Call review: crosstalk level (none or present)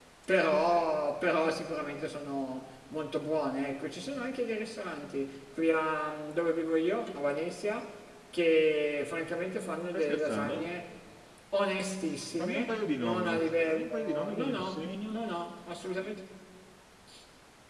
present